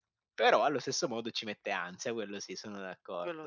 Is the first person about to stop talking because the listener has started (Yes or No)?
Yes